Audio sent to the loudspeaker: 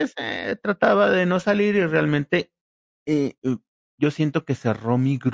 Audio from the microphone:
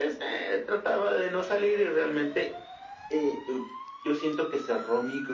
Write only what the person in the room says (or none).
none